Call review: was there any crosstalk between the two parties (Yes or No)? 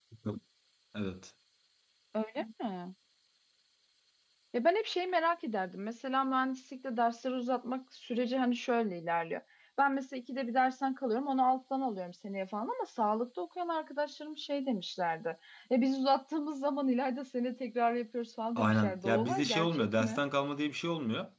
Yes